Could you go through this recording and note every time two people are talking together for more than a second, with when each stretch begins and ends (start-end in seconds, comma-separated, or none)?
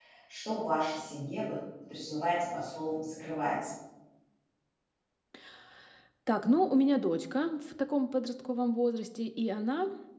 none